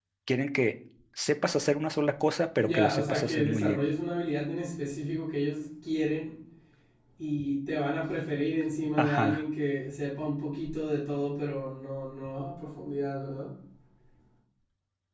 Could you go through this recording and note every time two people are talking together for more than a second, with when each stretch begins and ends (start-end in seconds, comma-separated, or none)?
2.6-3.8